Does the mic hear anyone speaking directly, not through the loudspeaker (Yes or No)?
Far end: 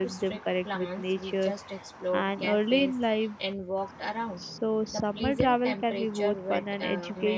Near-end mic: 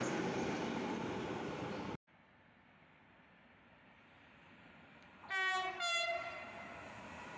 No